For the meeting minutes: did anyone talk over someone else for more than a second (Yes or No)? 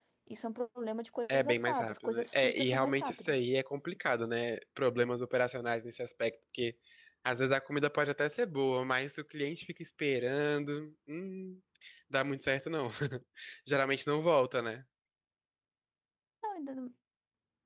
Yes